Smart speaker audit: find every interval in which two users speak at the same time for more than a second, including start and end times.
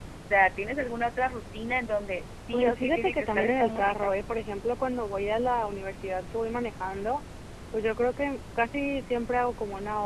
2.5-4.0

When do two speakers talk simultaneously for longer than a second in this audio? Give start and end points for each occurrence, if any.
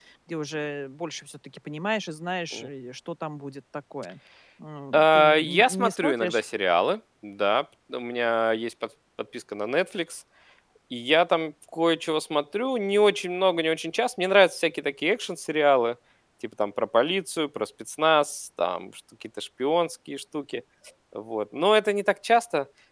4.9-6.4

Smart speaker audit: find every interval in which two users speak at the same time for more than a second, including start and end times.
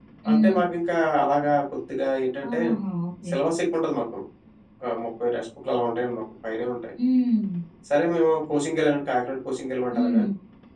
none

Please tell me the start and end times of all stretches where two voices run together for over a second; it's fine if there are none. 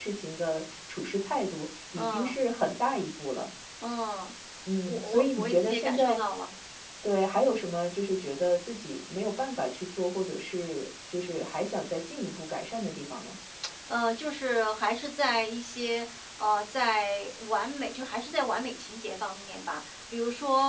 4.9-6.2

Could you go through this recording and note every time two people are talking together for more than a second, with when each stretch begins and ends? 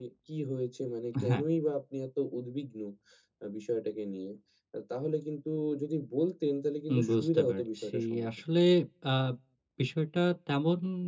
6.9-8.3

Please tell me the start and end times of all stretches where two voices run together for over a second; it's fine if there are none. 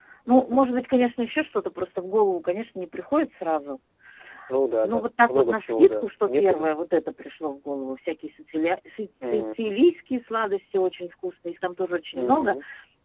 4.8-6.7

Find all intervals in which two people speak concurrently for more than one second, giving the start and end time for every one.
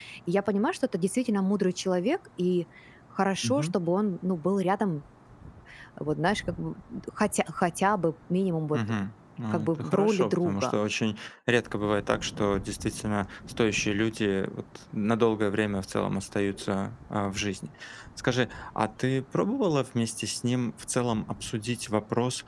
9.5-10.8

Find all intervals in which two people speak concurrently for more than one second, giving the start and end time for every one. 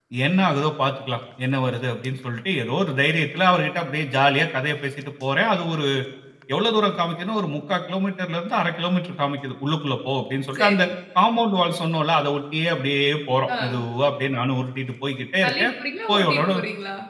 none

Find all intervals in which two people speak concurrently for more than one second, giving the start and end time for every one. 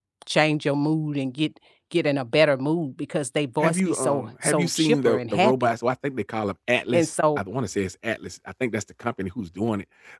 3.6-5.7

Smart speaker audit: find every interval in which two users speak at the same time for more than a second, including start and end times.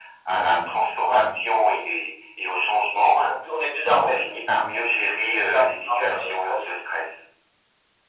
5.2-6.7

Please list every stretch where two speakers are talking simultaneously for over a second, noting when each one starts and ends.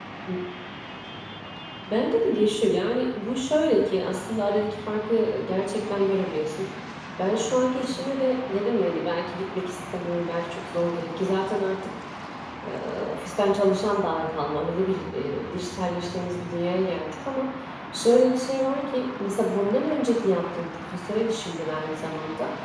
none

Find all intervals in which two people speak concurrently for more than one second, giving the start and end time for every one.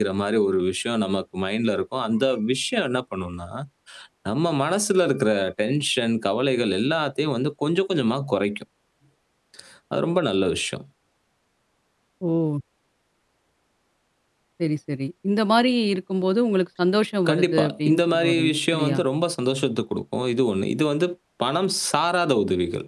17.3-19.0

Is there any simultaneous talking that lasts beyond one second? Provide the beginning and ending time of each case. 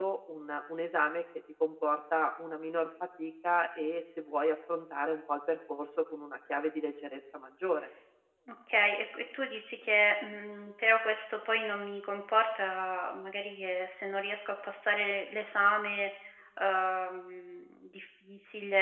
none

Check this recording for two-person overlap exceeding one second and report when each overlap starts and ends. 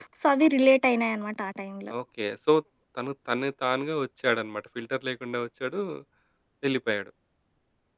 none

